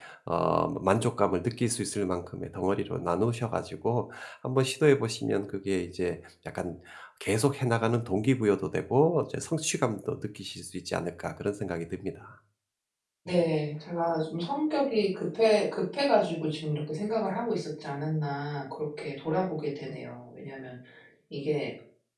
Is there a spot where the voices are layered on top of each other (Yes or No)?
No